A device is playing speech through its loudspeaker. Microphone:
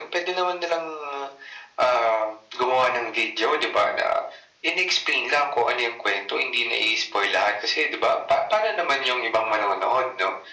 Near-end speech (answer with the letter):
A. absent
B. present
A